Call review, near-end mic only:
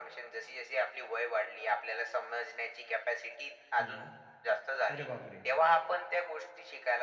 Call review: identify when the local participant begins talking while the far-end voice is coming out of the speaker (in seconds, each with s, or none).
3.8 s